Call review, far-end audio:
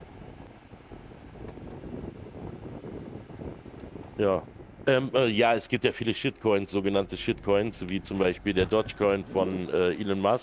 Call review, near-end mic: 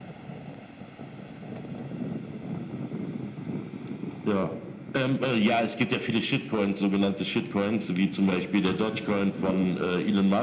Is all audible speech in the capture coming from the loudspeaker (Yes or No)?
Yes